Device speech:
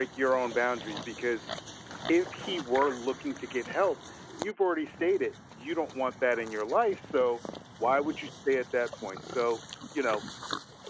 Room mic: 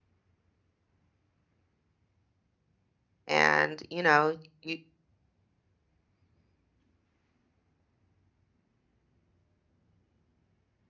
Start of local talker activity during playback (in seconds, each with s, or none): 3.3 s